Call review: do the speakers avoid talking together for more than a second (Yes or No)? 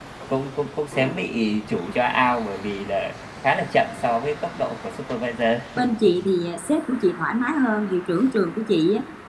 Yes